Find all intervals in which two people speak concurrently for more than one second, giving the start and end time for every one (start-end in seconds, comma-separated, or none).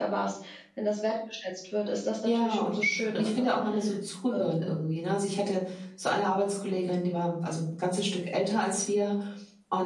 none